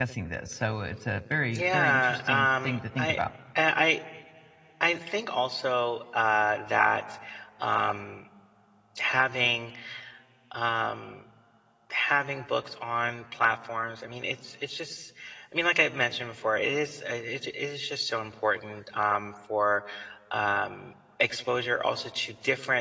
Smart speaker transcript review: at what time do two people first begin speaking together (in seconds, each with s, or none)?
1.5 s